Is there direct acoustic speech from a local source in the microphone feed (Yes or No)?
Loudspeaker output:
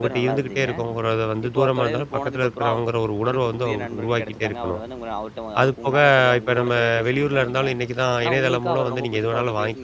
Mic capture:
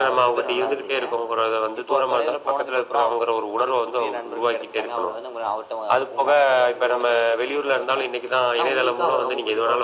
No